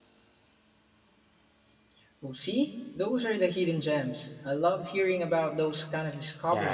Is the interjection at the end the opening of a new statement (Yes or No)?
Yes